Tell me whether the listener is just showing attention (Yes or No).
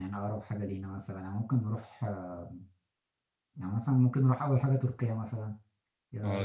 No